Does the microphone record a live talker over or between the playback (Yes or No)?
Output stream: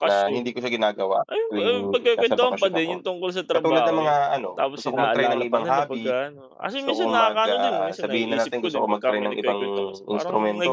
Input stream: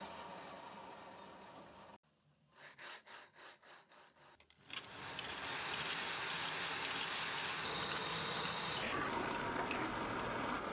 No